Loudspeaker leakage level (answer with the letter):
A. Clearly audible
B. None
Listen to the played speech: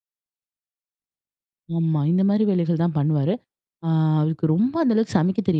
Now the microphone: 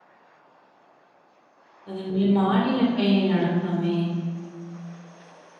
B